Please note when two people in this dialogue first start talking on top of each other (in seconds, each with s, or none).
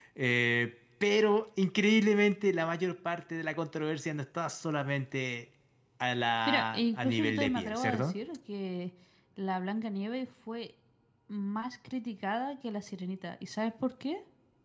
6.5 s